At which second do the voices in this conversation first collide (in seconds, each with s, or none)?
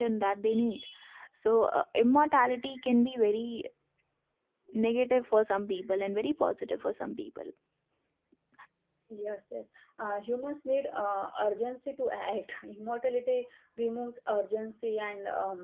none